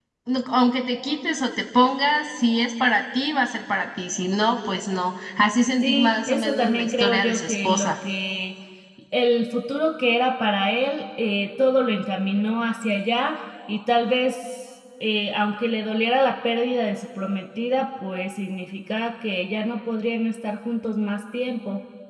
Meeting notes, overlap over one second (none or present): present